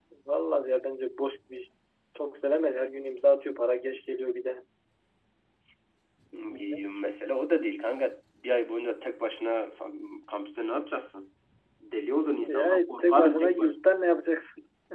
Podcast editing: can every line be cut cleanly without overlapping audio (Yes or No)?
No